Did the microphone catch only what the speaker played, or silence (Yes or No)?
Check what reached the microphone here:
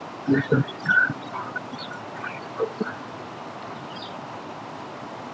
Yes